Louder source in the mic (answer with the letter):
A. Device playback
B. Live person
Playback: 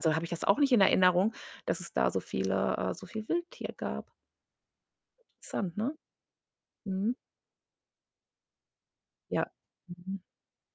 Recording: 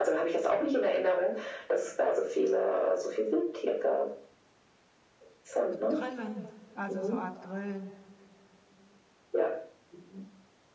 A